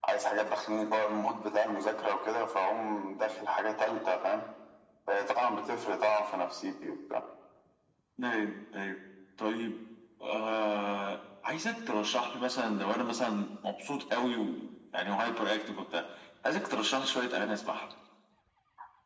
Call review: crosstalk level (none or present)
none